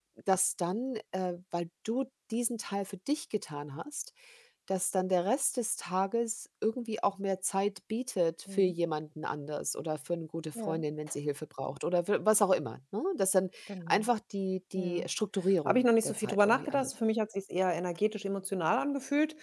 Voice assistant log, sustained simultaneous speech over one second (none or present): present